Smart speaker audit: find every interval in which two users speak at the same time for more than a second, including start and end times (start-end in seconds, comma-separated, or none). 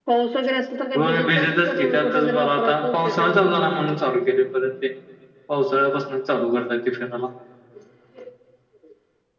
1.0-3.5